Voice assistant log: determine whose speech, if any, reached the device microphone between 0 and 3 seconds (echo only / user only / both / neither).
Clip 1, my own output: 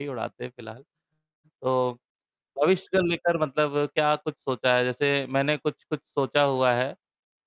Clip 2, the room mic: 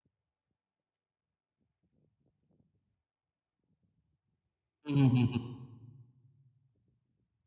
neither